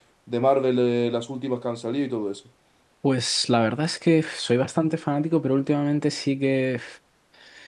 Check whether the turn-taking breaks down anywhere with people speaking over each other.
No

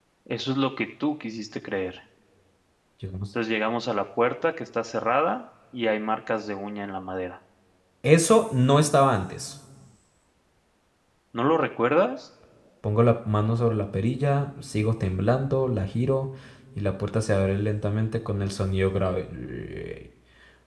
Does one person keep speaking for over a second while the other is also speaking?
No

